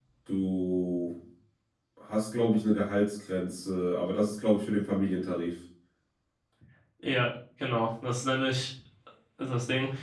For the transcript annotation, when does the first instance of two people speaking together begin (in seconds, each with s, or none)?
none